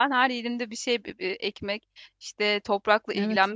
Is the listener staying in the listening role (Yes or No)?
Yes